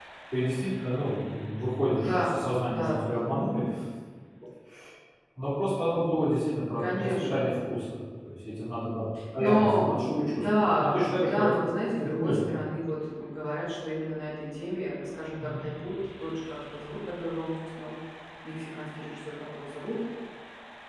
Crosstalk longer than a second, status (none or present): present